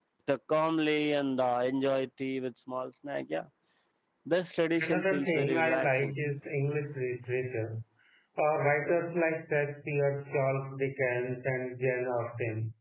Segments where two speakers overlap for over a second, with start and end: 4.8-6.1

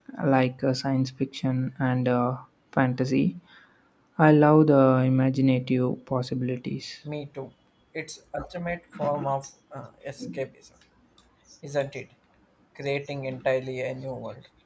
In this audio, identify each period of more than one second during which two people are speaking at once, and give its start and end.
none

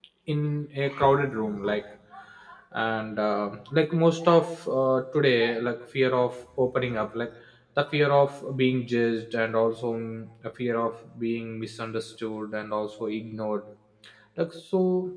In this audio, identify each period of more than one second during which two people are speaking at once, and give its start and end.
none

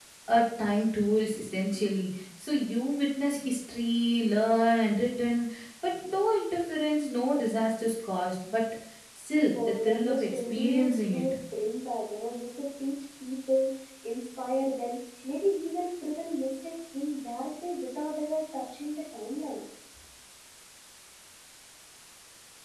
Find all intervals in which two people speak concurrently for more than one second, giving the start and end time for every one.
9.6-11.2

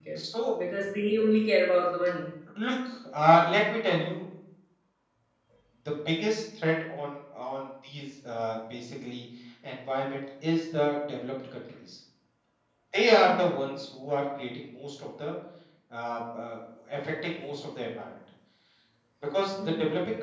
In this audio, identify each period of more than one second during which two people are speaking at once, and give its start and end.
none

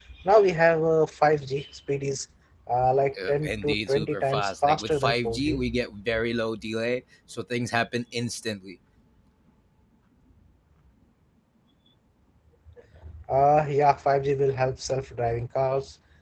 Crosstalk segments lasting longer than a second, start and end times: 3.3-5.6

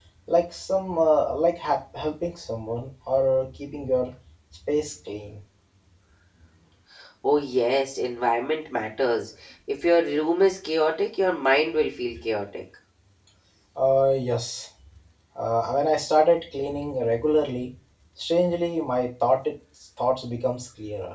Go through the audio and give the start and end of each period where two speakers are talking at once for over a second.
none

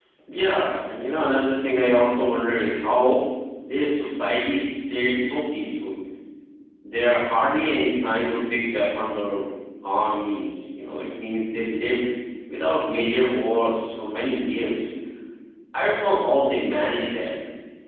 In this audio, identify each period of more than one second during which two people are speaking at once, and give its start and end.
none

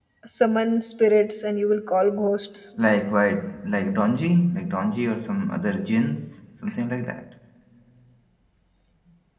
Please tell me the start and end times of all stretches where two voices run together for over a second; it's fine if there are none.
none

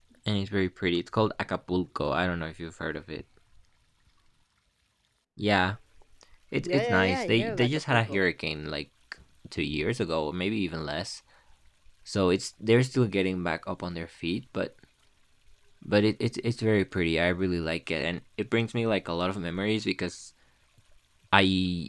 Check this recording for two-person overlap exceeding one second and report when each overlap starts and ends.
6.6-8.2

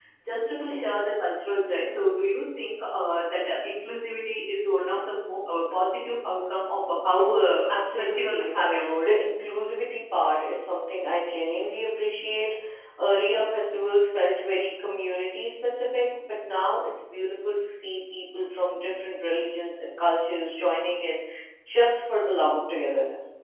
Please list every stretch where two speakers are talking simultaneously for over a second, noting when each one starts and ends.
7.7-9.1

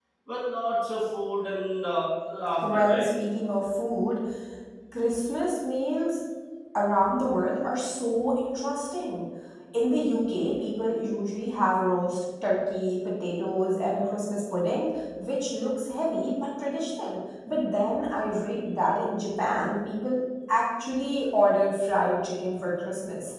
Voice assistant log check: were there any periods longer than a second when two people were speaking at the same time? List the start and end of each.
none

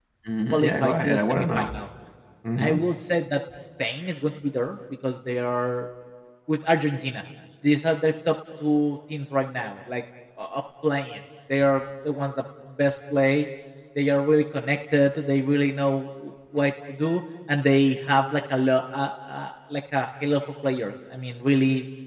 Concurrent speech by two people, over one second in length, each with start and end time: 0.5-1.8

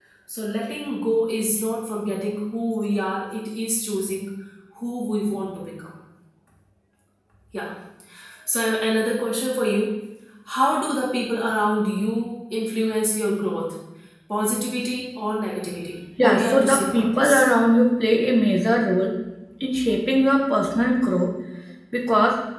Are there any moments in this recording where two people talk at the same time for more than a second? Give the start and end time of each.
16.2-17.5

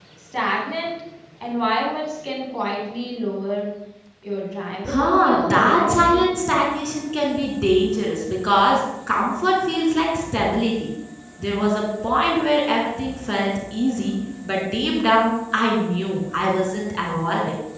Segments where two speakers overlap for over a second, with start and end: 4.9-6.2

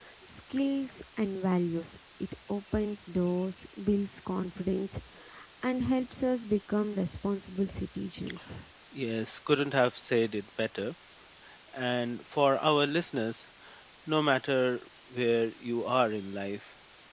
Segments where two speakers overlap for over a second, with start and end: none

